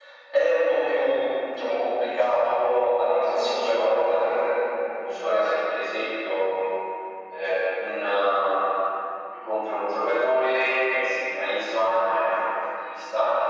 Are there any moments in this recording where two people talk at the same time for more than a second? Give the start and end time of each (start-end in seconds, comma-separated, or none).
3.0-4.2